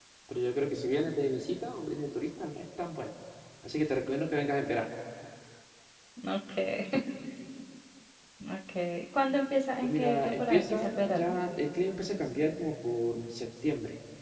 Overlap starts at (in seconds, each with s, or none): 9.8 s